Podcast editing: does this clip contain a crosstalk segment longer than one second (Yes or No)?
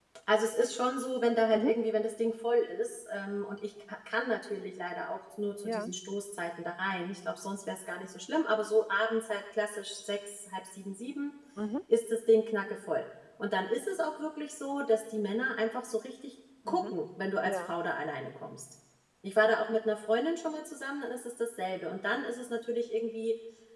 No